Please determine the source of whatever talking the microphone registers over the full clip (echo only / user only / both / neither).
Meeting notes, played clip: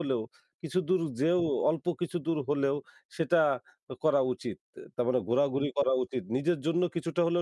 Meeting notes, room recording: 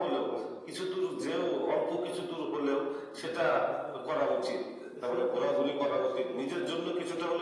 both